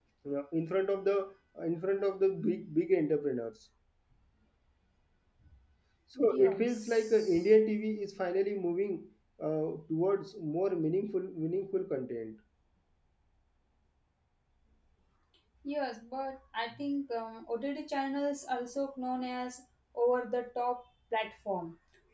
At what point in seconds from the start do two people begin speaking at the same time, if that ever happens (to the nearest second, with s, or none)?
6 s